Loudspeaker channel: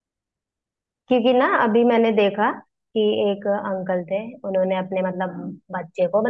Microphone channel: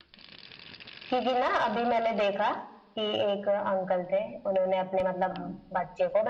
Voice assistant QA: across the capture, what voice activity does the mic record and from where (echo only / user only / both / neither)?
echo only